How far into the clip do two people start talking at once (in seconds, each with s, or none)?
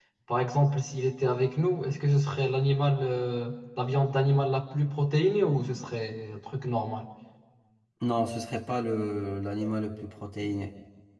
none